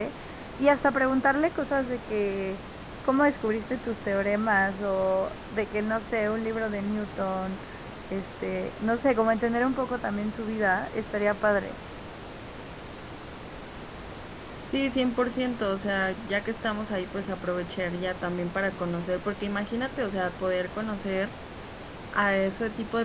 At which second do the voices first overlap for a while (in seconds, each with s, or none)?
none